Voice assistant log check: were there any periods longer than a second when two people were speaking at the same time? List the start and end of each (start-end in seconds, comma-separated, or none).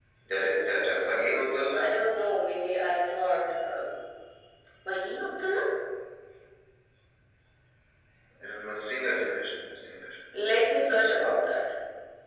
none